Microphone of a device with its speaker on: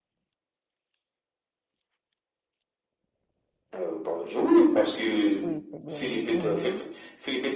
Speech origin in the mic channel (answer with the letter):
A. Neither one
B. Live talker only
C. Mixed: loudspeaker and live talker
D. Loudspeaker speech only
C